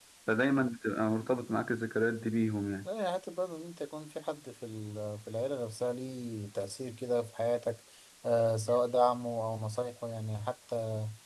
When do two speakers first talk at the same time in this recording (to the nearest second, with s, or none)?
none